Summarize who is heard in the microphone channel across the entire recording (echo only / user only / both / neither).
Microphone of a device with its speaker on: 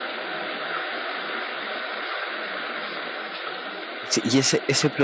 user only